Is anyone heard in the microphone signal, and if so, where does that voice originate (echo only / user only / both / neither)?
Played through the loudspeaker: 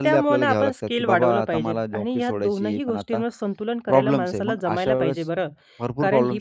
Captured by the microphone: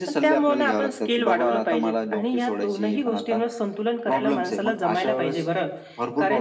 echo only